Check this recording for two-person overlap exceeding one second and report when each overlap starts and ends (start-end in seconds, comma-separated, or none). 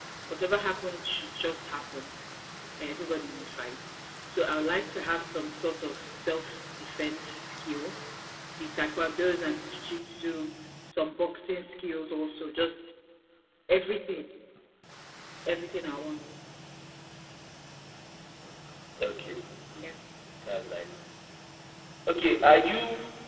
none